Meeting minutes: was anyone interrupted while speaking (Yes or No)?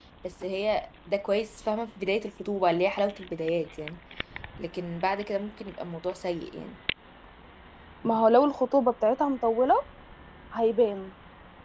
No